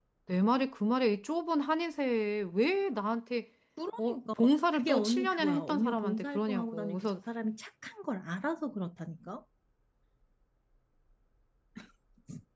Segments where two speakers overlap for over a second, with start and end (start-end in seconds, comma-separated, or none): 4.7-7.1